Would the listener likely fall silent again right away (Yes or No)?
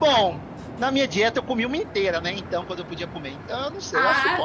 No